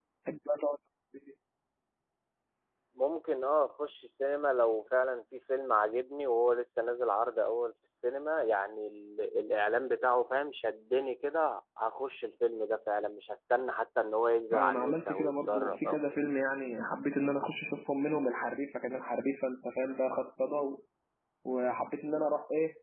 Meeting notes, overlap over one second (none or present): present